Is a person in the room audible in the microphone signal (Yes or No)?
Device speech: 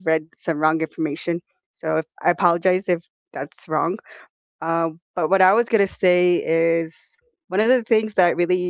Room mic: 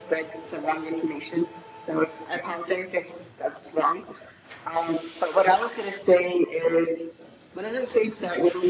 No